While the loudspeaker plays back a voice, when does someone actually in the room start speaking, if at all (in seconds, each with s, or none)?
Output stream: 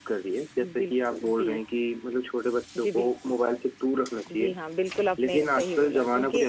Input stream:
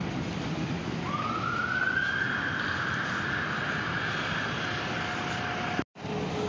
none